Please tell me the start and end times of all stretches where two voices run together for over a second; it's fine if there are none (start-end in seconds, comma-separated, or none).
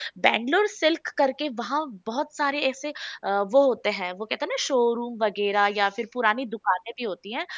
none